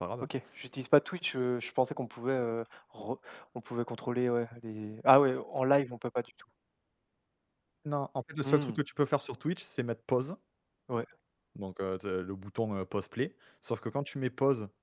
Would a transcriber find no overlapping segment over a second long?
Yes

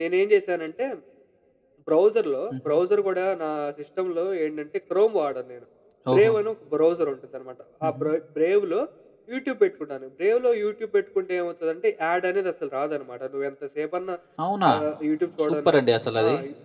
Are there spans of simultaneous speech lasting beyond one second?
No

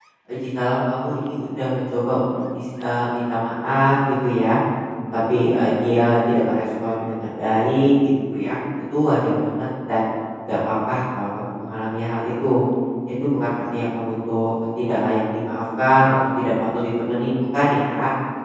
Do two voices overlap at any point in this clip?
No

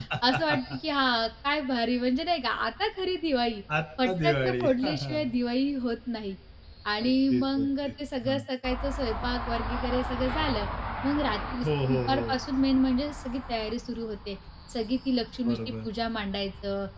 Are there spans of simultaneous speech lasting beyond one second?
Yes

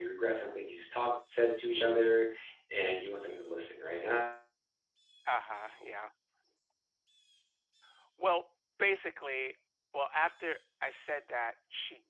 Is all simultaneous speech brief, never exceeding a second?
Yes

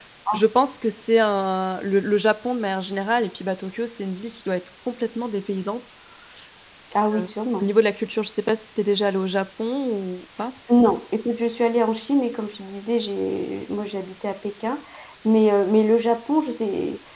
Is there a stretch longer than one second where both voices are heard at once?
No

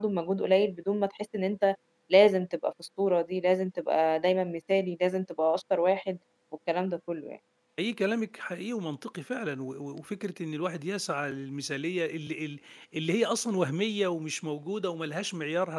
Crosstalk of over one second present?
No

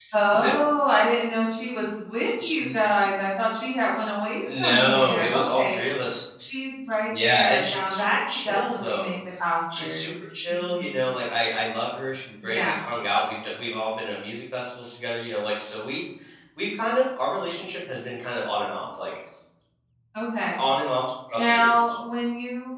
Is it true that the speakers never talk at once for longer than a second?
No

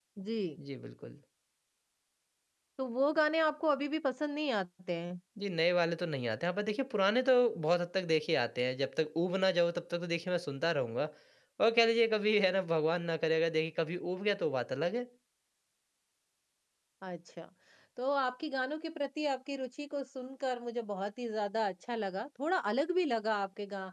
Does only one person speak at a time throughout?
Yes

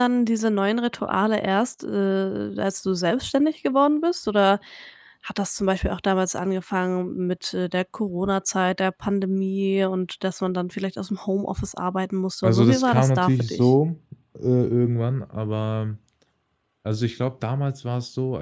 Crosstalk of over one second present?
Yes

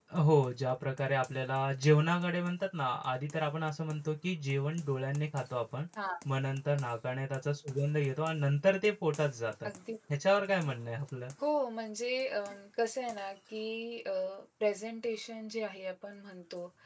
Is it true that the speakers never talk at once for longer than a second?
Yes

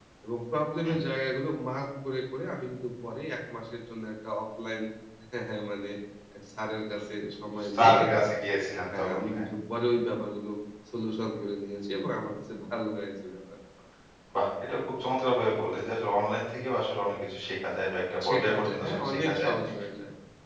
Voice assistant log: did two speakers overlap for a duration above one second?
Yes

